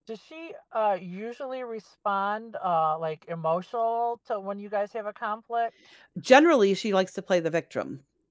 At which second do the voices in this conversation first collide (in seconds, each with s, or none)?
none